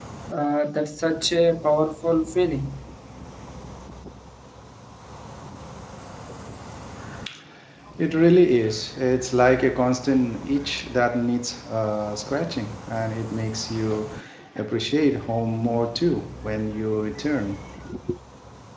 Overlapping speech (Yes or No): No